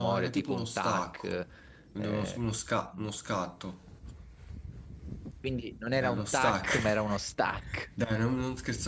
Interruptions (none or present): present